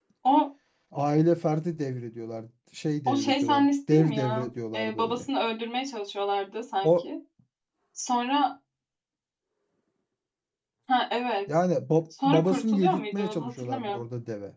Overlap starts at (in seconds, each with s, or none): 3.1 s